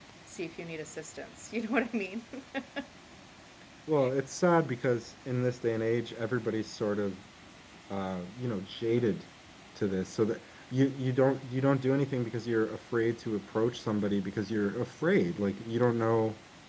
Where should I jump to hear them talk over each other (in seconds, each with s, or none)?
none